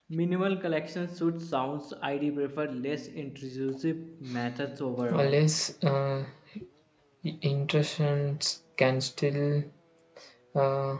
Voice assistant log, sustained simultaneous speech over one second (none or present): none